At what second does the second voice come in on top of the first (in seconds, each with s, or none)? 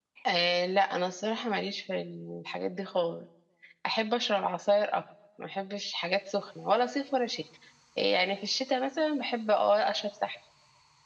none